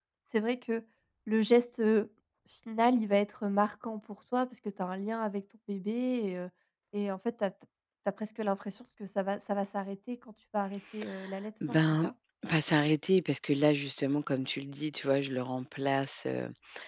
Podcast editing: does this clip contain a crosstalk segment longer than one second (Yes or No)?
No